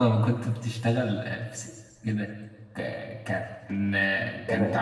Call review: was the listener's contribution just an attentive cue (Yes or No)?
Yes